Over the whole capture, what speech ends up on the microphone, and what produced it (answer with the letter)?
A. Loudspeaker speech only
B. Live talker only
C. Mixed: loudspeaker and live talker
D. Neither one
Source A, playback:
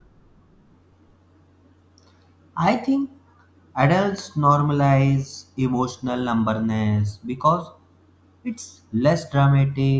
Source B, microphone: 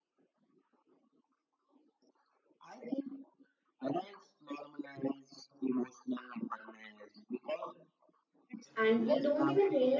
C